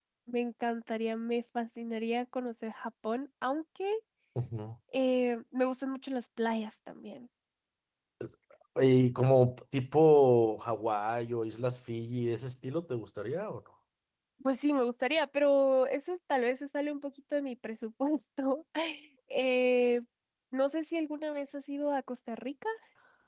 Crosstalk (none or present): none